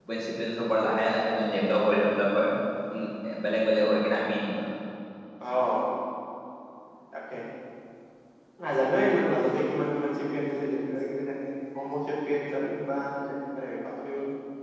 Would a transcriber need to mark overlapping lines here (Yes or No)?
No